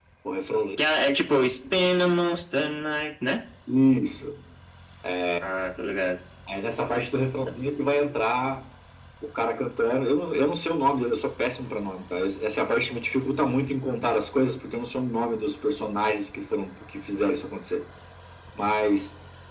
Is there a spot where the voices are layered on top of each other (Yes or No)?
No